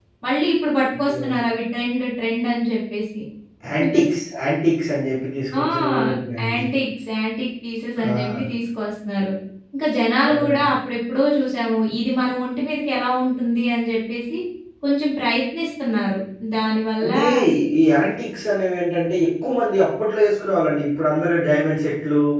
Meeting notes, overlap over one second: none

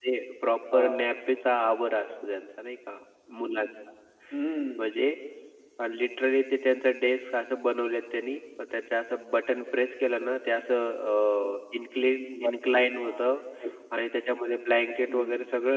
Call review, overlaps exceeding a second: none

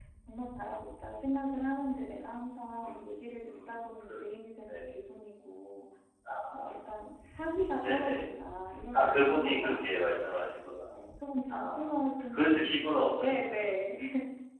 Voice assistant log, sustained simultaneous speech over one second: present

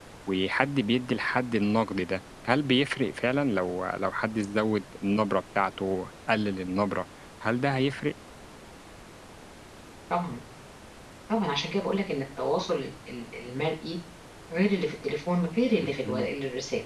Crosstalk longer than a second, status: none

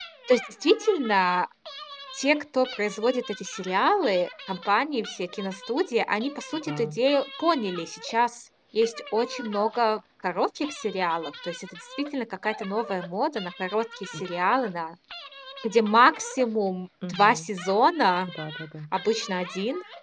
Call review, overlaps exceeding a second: none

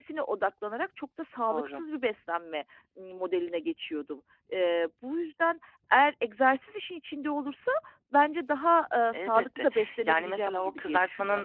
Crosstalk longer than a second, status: present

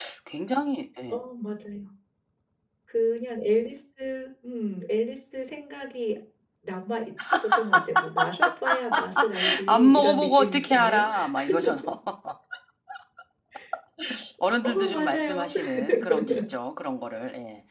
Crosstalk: present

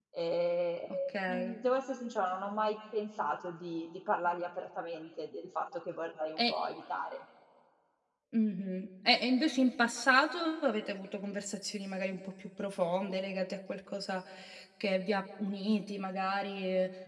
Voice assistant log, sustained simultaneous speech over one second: none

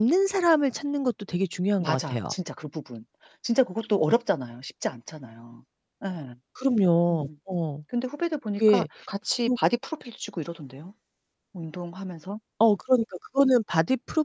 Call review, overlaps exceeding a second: none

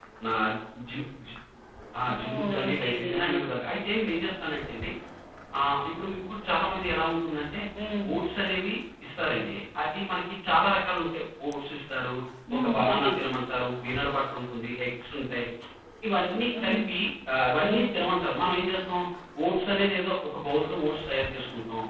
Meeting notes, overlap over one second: present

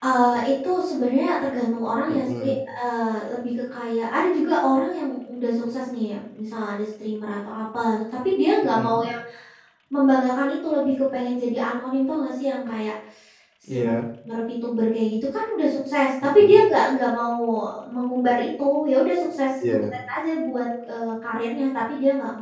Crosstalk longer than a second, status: none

